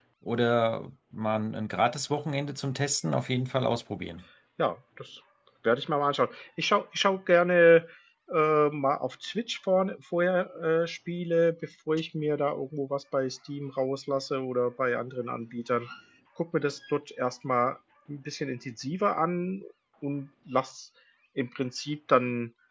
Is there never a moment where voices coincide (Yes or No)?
Yes